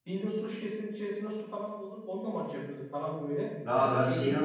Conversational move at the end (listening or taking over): taking over